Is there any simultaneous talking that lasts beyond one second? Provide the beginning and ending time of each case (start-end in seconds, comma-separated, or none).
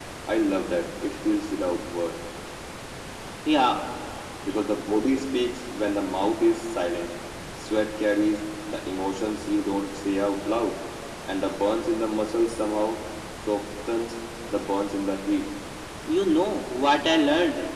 none